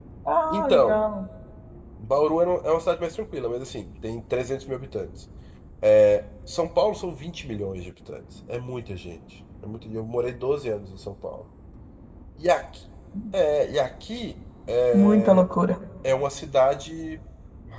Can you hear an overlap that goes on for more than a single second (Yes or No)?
No